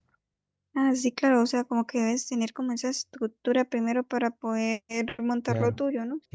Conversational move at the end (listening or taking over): taking over